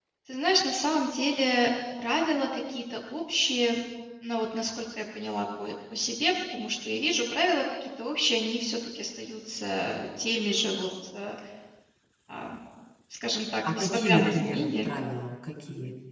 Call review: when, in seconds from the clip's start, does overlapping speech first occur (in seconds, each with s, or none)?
13.7 s